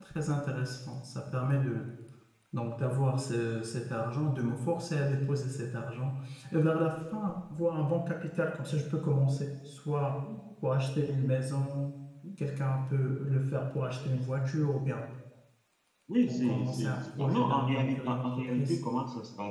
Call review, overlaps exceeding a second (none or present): present